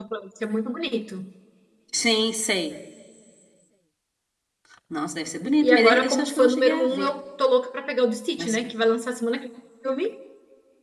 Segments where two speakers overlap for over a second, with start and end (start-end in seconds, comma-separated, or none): 5.7-7.1